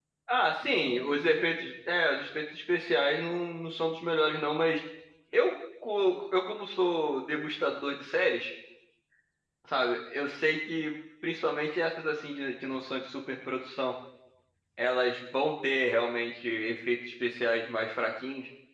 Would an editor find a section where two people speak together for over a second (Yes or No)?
No